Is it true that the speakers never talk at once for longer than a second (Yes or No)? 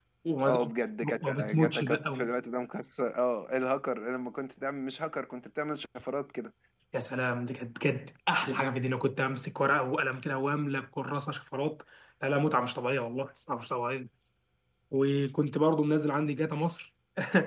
No